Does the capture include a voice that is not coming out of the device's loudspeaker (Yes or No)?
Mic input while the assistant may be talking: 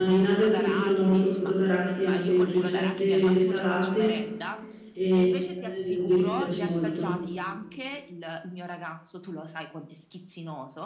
Yes